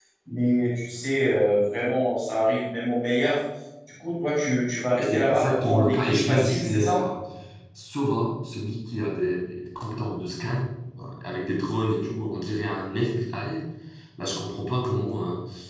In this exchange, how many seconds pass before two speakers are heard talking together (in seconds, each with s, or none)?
5.0 s